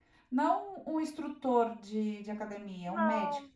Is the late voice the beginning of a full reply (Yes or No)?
Yes